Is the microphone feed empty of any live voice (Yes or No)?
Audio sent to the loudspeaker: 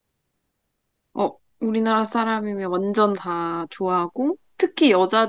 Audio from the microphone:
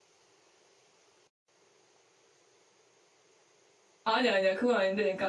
No